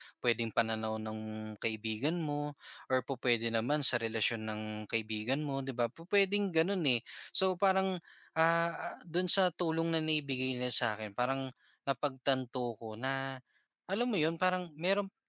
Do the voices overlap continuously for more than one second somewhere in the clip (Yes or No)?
No